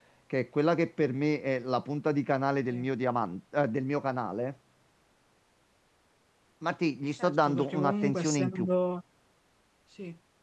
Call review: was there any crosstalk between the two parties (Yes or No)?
Yes